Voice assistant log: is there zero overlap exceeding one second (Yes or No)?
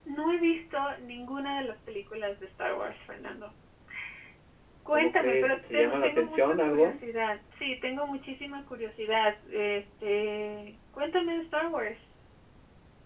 No